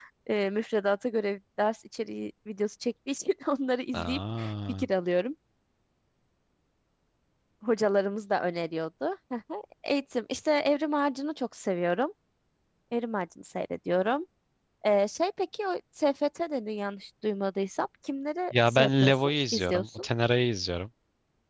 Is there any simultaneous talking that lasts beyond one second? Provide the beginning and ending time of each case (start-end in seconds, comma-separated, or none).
18.5-20.1